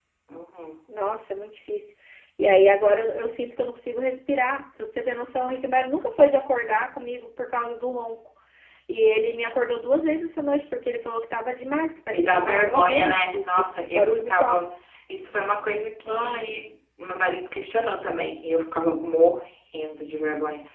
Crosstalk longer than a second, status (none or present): present